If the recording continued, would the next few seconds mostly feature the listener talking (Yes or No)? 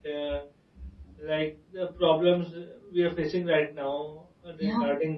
No